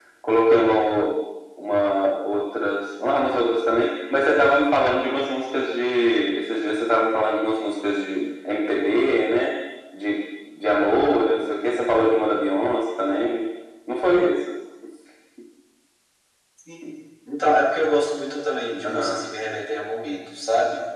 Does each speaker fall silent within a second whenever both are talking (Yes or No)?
Yes